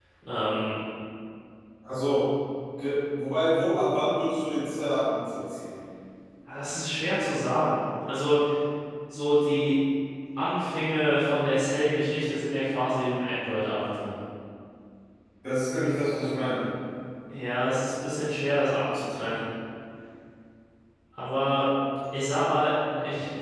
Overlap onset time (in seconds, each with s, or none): none